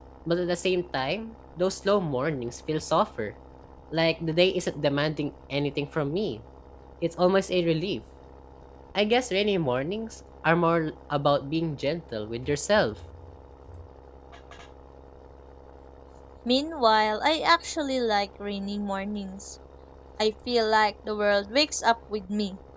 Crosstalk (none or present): none